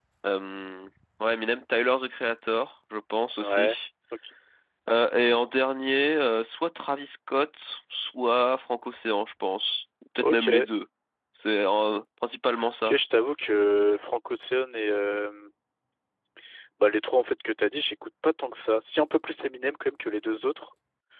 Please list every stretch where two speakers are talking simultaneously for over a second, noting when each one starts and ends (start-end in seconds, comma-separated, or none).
none